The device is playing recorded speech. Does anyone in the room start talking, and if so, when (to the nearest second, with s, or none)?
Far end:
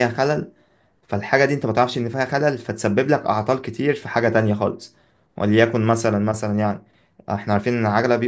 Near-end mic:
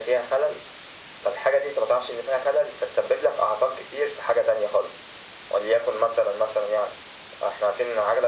none